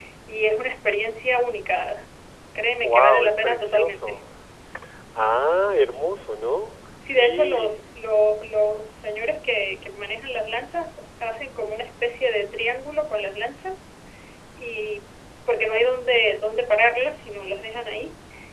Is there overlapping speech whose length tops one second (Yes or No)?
Yes